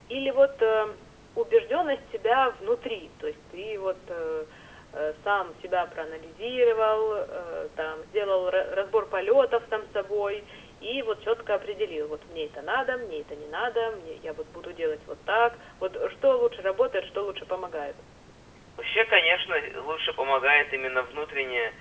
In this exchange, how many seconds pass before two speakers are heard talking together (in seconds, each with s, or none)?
none